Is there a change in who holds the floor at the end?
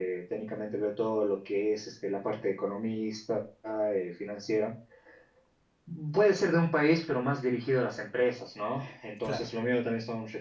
No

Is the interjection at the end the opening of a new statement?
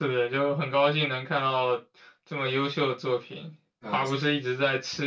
No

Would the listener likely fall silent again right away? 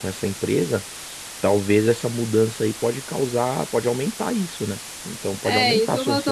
No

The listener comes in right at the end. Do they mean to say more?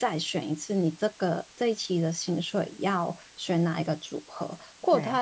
No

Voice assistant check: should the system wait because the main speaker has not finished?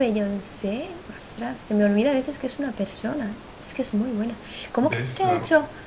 Yes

